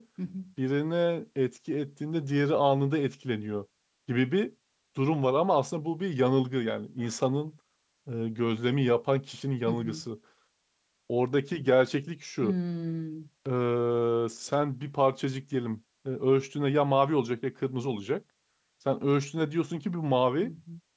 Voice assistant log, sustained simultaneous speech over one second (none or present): none